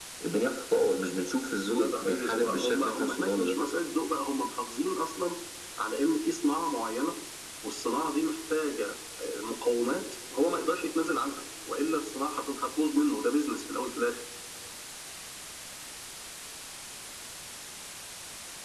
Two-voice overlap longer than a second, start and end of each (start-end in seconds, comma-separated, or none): 1.6-3.6